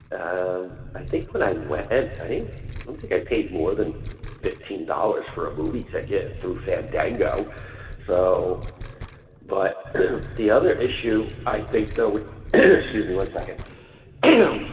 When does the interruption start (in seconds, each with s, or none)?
none